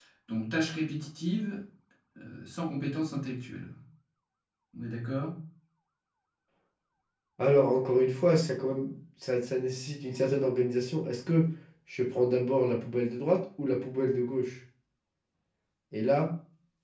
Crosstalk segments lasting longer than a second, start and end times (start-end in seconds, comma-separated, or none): none